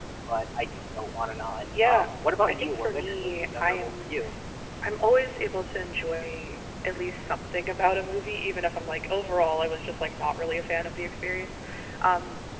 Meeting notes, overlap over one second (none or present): present